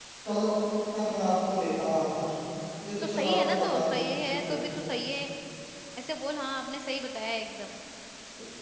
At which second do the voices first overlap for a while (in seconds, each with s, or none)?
3.0 s